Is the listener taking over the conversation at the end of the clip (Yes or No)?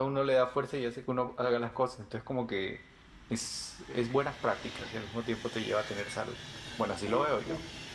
Yes